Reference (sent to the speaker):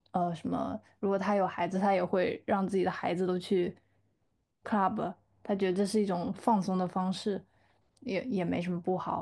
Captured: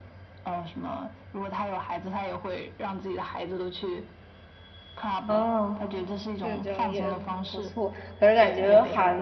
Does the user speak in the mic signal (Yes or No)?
Yes